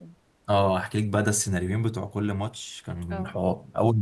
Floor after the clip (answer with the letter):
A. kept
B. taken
A